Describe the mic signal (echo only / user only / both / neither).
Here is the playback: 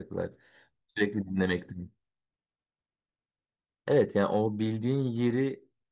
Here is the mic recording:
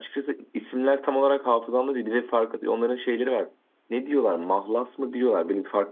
user only